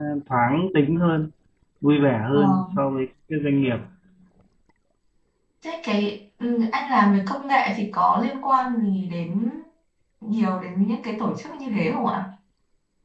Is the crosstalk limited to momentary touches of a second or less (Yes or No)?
Yes